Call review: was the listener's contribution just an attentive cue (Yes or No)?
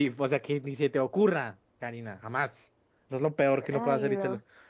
Yes